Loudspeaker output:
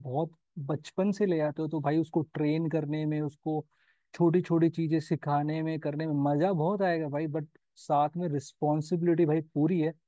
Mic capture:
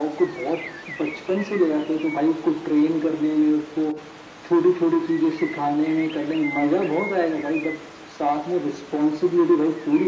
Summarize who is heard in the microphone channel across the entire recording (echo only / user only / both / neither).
echo only